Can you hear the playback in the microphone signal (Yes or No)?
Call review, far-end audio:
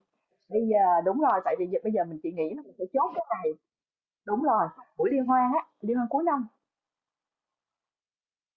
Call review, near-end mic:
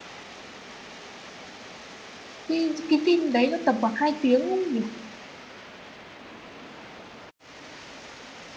No